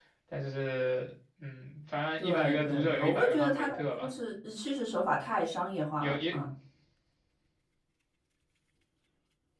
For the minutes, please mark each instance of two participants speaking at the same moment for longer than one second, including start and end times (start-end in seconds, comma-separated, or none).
2.2-4.1